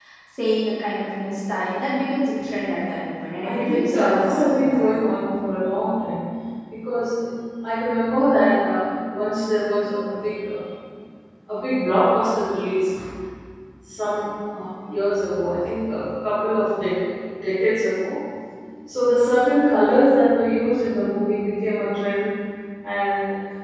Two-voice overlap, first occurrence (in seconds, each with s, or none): 3.4 s